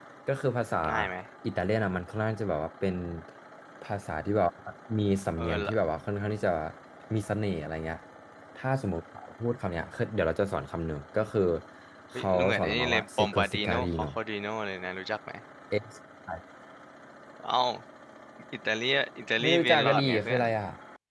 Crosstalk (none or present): present